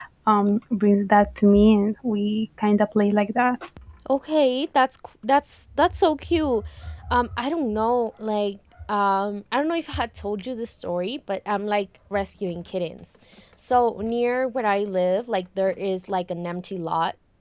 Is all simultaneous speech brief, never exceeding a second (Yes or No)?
Yes